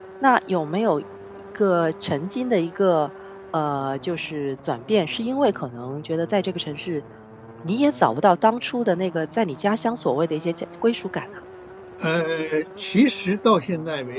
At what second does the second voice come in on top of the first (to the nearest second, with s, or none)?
none